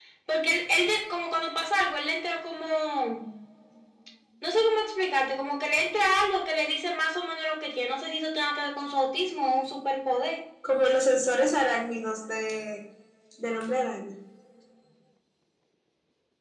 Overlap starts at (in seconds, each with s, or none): none